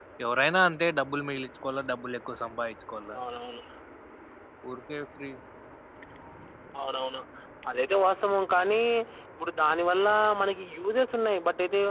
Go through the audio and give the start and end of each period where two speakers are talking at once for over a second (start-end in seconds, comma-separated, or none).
none